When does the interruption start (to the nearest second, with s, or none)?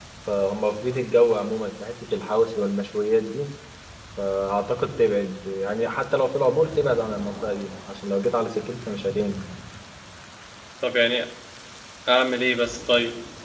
none